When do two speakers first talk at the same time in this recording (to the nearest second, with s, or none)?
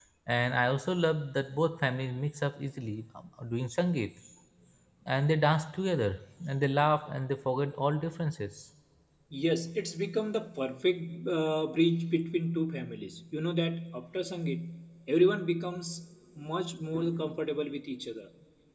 none